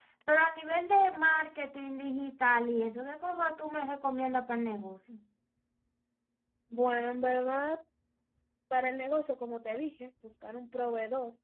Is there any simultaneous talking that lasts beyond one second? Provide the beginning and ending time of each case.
none

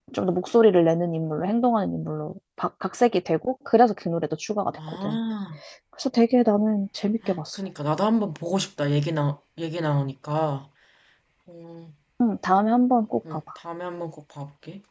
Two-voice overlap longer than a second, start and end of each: none

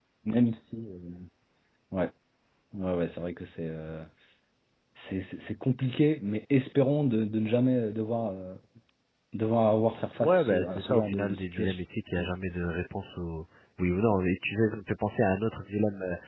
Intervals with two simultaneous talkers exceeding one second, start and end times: 10.2-11.8

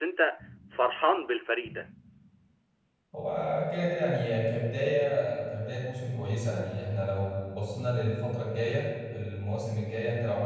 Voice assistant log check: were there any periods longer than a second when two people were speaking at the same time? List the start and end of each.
none

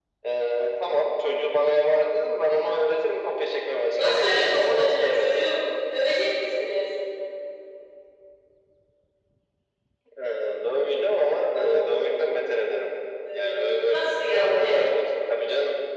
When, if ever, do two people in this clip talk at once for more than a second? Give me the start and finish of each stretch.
4.0-5.4, 13.3-14.8

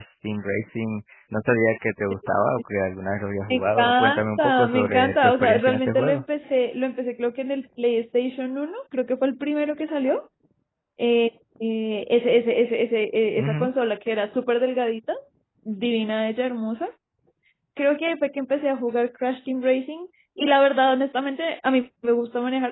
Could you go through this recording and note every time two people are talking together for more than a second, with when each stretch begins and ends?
3.5-6.2

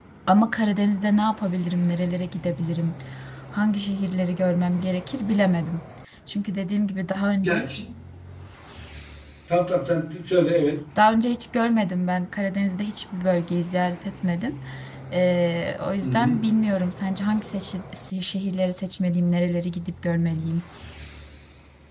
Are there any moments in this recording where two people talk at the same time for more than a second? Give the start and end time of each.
none

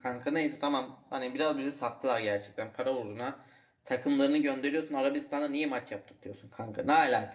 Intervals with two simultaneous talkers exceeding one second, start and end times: none

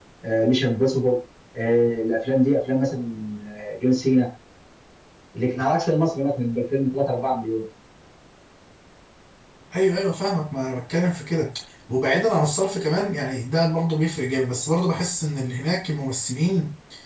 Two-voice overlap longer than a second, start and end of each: none

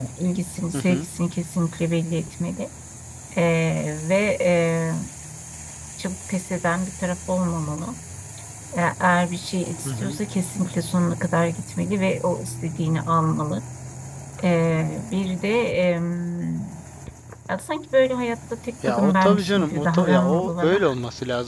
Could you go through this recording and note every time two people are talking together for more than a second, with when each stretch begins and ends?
18.8-20.8

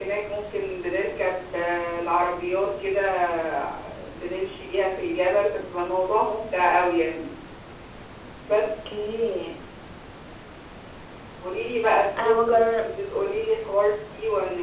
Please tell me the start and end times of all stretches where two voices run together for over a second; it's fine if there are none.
none

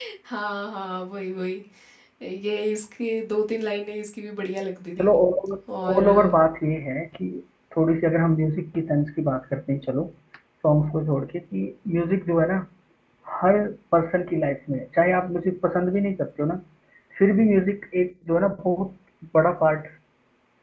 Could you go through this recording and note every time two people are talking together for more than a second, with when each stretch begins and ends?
none

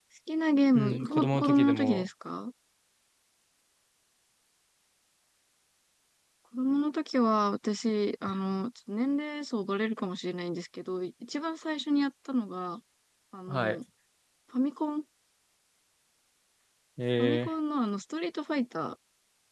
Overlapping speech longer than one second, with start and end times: 0.7-2.1

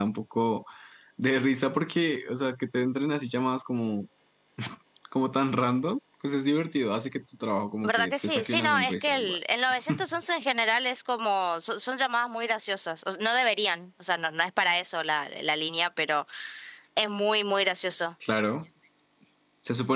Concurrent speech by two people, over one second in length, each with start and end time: 7.8-9.4

